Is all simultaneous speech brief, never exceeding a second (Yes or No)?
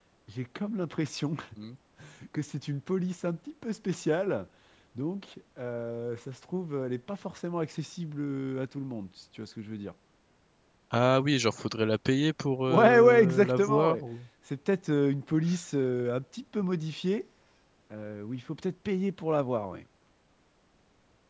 No